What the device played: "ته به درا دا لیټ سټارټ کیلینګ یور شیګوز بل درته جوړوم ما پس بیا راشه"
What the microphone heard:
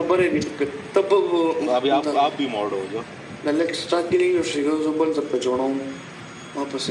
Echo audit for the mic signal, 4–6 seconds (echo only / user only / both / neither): echo only